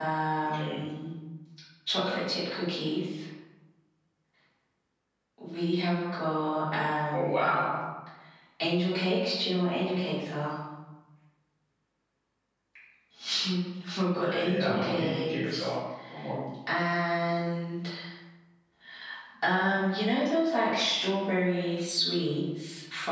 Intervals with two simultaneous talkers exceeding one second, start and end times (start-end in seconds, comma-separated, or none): 14.2-15.7